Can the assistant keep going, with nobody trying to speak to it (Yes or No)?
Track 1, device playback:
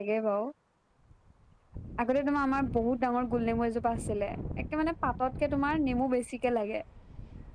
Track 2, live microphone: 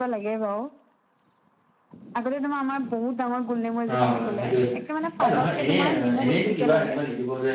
No